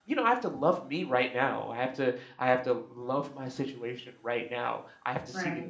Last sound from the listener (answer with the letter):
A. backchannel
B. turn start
A